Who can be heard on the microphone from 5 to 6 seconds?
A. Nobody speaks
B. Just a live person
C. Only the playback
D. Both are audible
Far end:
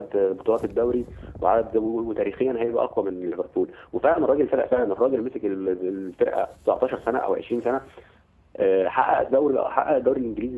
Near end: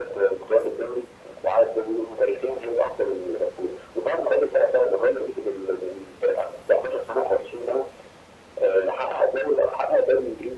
C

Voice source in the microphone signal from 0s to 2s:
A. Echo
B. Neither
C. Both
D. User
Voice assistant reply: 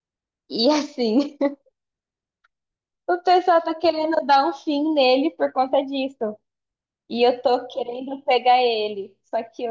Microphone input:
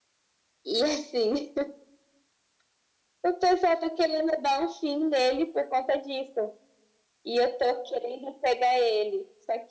A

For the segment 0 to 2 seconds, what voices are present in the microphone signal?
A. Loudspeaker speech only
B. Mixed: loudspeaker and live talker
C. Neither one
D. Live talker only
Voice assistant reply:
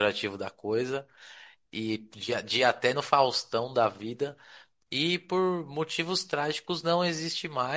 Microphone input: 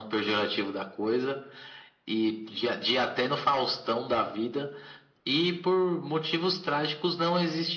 A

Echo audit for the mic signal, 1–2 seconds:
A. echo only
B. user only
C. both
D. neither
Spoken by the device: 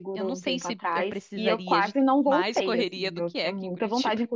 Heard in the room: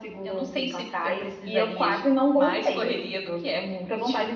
A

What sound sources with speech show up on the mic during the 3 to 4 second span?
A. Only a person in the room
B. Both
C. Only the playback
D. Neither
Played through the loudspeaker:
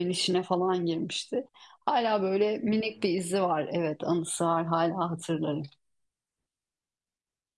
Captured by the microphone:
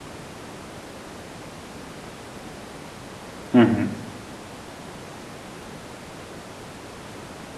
A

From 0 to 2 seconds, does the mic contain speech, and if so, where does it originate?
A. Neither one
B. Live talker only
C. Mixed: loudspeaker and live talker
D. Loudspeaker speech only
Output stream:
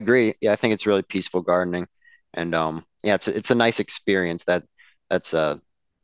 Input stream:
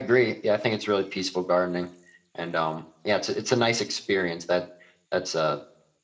D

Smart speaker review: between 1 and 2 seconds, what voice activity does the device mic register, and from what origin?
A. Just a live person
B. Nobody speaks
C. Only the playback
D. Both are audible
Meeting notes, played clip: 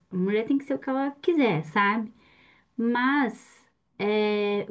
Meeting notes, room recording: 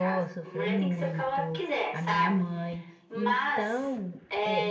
D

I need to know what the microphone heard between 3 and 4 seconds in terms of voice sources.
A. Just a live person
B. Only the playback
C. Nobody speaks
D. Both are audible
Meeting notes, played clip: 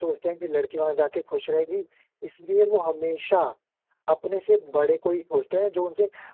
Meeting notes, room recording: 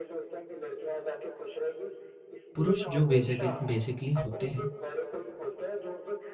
D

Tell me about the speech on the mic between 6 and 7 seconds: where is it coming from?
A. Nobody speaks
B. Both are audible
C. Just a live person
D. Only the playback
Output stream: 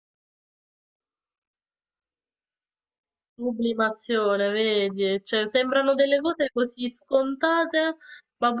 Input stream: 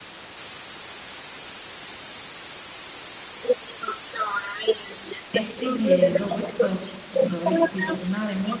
B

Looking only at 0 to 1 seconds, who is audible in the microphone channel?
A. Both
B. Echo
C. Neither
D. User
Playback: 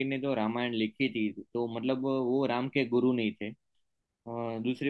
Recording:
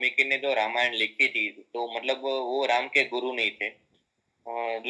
B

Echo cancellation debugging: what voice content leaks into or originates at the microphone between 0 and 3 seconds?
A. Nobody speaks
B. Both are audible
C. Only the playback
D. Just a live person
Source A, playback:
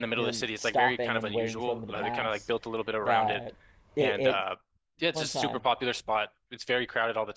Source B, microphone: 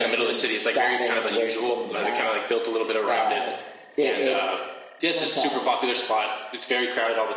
C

